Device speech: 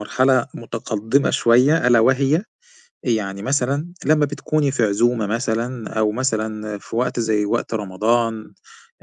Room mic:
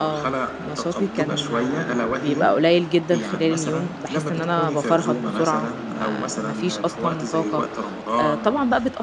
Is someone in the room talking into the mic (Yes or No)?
Yes